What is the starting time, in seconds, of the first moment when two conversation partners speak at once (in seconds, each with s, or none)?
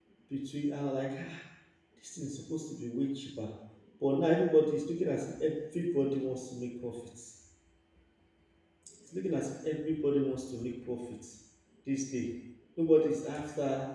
none